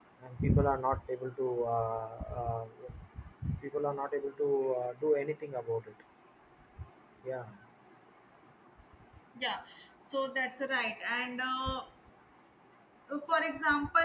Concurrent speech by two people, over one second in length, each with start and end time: none

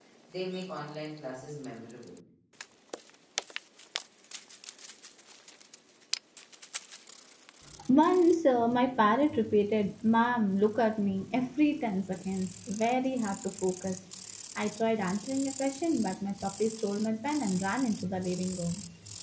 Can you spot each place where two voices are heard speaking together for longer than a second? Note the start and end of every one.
none

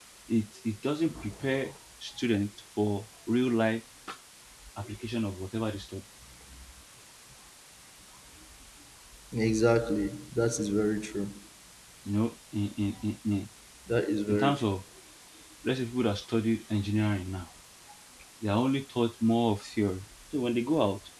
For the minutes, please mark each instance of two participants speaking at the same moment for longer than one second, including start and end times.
none

